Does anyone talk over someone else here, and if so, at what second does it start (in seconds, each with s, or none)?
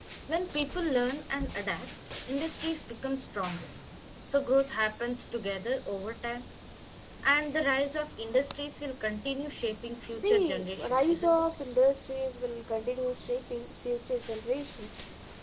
10.1 s